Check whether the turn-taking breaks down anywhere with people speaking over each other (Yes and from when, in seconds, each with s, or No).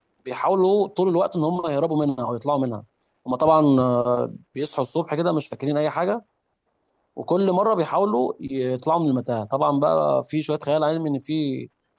No